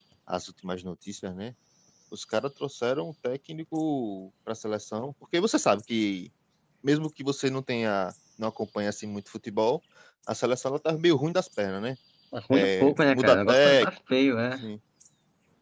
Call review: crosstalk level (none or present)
present